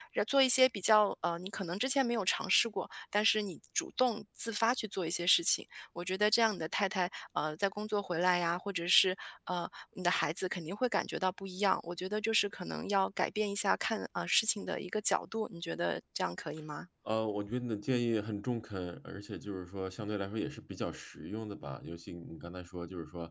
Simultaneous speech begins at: none

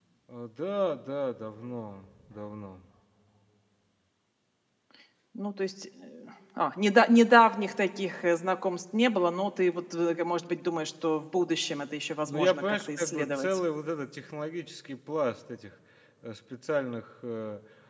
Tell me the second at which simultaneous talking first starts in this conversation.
12.3 s

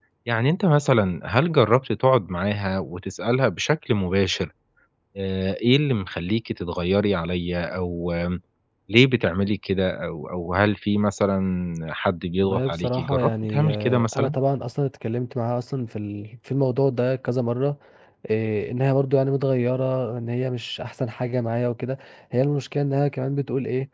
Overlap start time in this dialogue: 12.4 s

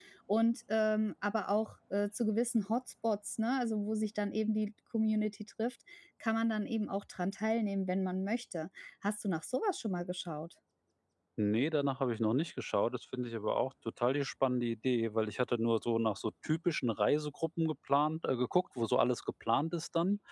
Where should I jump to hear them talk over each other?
none

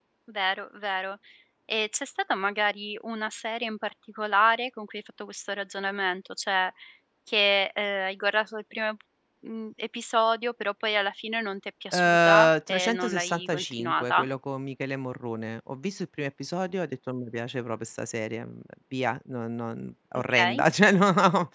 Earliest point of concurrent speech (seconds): 11.9 s

